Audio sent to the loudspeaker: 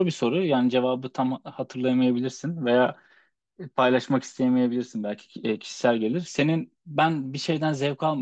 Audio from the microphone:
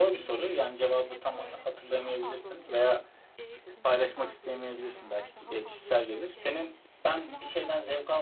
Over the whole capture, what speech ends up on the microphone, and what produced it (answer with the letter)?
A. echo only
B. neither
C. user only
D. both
D